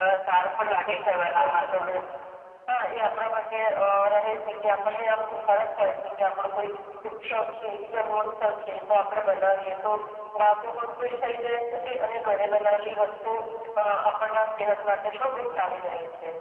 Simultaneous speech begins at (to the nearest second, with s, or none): 1 s